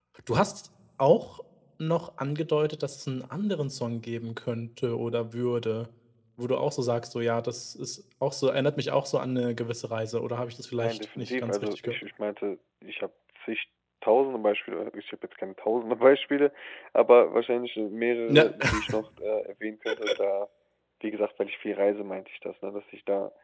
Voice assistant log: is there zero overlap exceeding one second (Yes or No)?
No